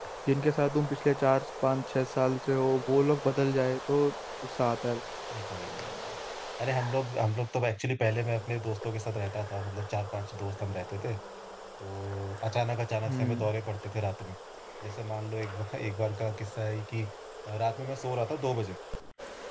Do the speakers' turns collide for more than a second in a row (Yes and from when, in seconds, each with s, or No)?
No